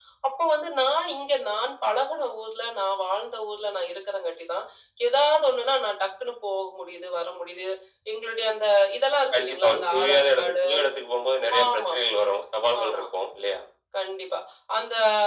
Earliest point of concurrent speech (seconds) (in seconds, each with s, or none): 9.3 s